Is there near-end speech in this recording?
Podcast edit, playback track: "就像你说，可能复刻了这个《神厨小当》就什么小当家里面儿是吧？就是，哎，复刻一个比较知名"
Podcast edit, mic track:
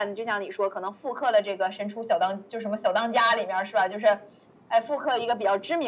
No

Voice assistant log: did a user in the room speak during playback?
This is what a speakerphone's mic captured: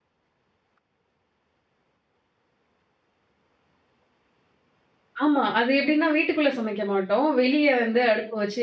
Yes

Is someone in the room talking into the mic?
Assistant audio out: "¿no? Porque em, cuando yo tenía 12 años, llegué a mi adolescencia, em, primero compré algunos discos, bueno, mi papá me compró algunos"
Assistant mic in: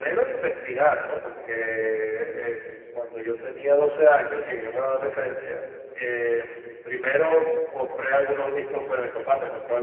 No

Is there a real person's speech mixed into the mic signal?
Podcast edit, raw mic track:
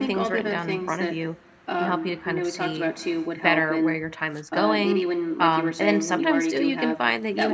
Yes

